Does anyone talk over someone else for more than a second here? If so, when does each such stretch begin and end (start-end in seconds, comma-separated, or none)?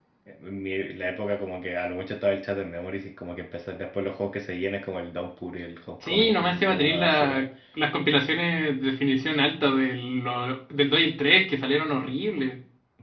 6.1-7.4